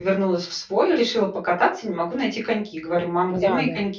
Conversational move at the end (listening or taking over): listening